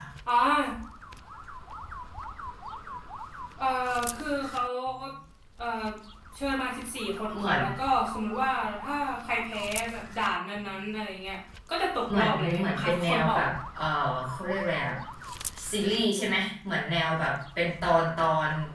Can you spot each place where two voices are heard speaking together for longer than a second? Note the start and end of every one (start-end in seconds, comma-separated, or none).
12.1-13.5